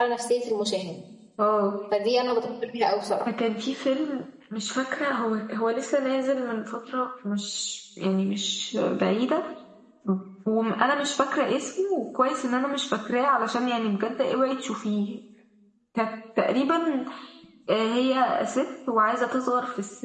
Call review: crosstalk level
none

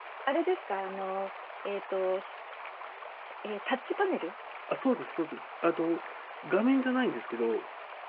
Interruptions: none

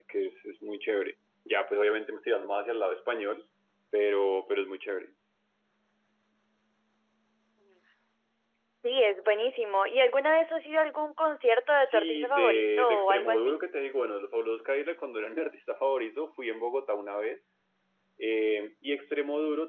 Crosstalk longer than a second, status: present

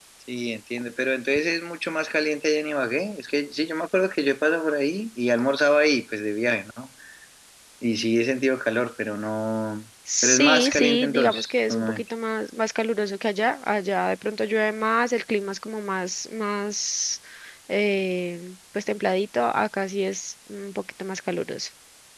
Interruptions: present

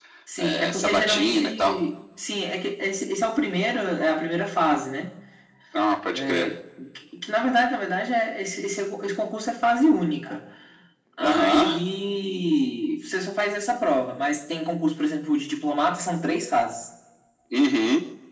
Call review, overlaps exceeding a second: present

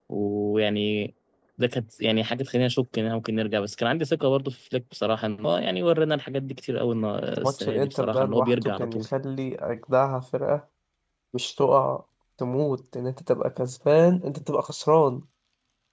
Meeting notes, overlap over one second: present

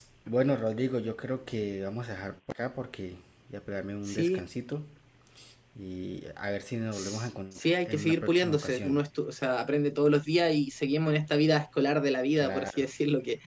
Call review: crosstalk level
present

